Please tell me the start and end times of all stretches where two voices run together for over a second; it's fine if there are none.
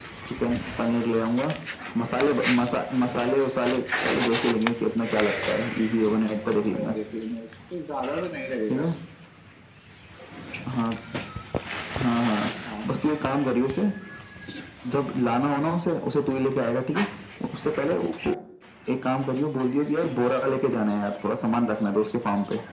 none

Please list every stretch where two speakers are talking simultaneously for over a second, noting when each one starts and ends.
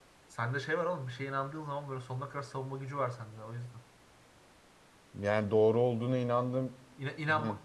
none

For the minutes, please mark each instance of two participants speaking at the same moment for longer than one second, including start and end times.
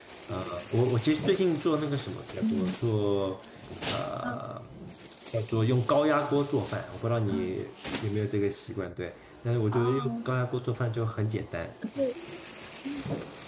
none

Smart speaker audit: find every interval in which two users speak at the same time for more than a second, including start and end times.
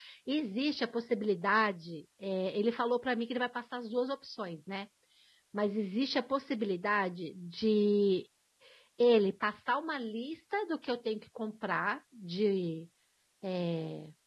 none

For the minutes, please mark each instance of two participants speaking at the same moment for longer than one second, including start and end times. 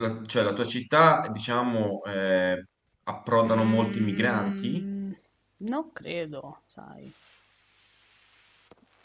3.4-4.8

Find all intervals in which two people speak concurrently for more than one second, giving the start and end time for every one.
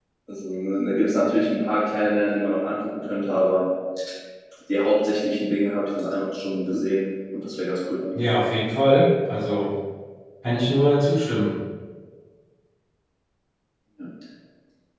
none

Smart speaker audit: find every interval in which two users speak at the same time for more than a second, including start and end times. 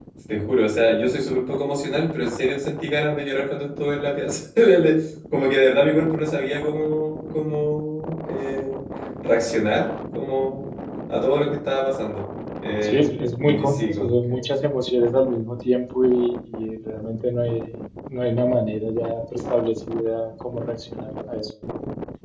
12.8-14.5

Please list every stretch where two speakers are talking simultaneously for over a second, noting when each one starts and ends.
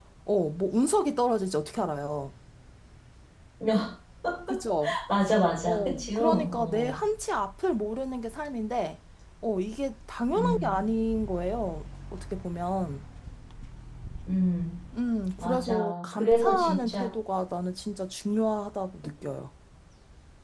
5.6-7.0, 15.4-17.1

